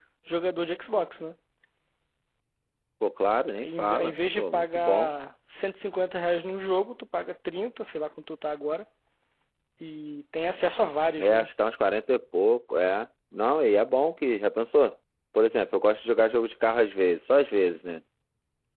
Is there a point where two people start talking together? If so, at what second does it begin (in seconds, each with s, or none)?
3.5 s